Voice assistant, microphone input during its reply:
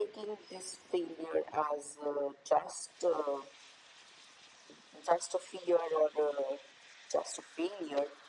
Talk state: echo only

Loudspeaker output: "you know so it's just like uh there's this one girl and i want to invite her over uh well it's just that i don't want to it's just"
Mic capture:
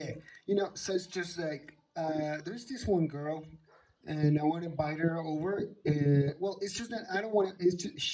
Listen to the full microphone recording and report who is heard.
echo only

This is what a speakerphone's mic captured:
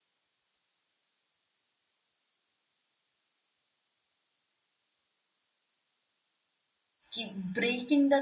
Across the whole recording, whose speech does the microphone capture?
user only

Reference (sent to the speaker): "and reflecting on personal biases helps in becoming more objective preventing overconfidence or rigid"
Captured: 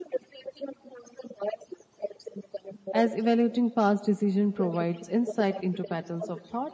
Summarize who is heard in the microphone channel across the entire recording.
both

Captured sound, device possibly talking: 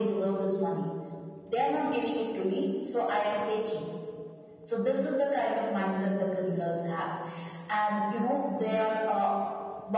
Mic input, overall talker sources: echo only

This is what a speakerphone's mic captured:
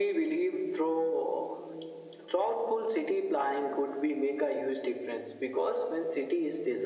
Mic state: echo only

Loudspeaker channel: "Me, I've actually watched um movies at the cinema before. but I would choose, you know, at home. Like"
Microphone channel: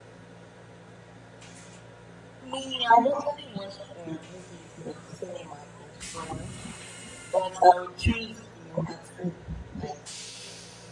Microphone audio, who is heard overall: echo only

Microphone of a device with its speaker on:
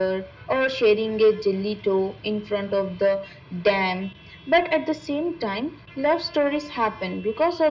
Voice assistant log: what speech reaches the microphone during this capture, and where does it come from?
echo only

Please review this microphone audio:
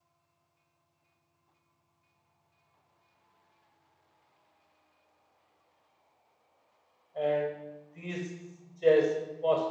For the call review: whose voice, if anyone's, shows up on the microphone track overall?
user only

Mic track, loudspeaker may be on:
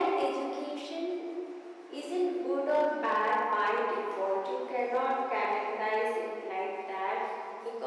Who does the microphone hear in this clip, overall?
echo only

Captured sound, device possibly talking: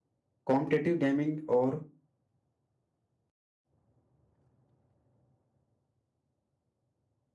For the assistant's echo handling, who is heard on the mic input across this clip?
user only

